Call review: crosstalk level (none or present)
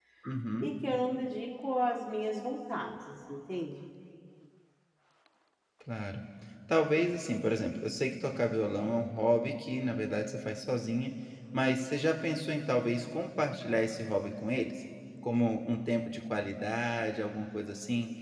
none